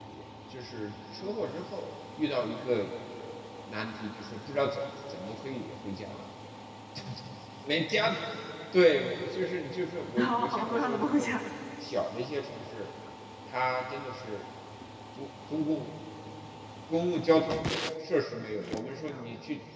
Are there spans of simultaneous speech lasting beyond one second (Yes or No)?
Yes